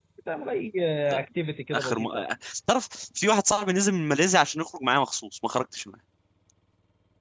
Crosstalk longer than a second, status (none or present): none